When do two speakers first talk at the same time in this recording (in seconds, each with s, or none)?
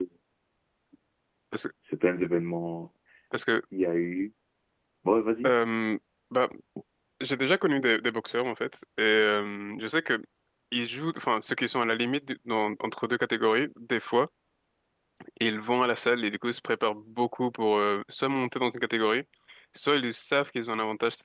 none